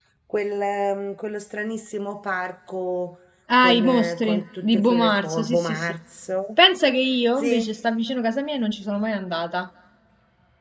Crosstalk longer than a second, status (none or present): present